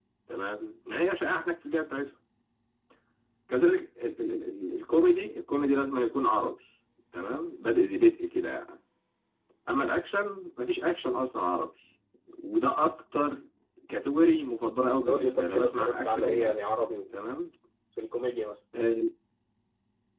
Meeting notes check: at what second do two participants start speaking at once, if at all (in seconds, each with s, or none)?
15.1 s